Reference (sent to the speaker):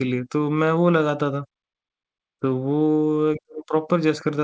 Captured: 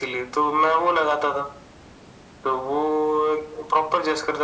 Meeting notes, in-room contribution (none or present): none